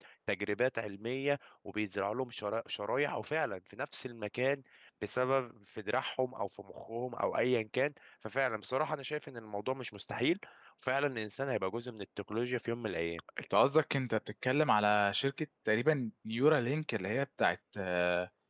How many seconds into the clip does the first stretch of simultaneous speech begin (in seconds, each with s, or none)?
none